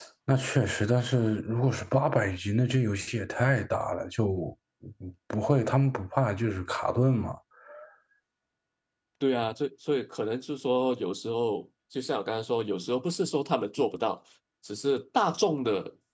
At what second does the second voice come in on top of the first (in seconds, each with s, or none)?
none